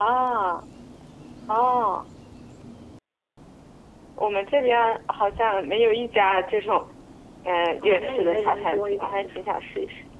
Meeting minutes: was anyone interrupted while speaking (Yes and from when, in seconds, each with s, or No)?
Yes, from 7.8 s